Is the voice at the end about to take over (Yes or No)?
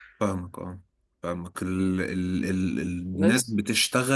No